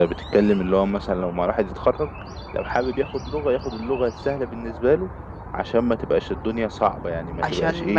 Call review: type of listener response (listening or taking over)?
taking over